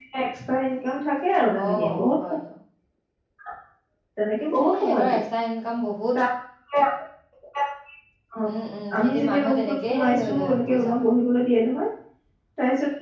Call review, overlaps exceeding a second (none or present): present